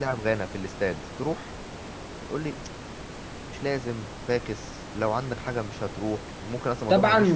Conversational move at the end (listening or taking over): taking over